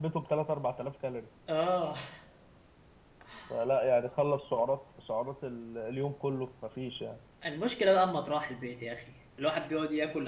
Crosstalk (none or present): none